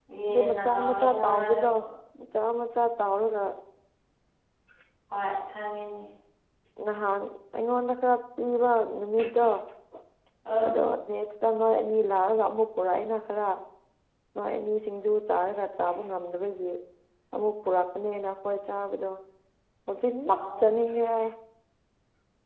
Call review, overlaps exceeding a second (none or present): present